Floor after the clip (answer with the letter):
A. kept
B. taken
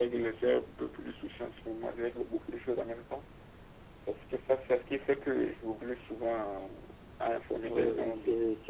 B